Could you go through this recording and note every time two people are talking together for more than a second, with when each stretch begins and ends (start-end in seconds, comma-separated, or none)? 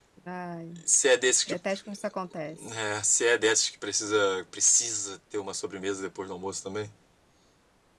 none